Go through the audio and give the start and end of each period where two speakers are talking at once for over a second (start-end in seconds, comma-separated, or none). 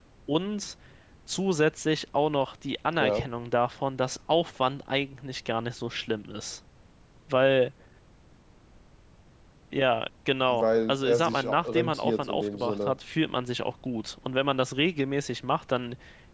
10.5-12.9